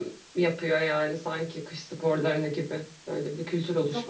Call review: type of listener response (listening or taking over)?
taking over